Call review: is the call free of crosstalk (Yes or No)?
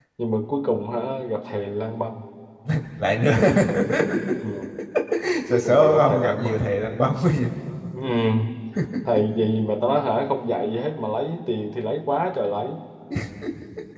No